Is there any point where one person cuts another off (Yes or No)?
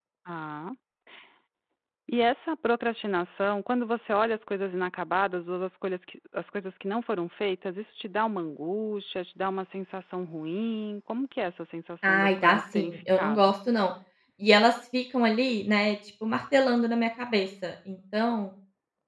Yes